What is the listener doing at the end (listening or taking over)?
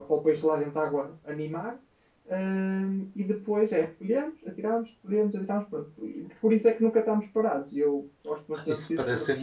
taking over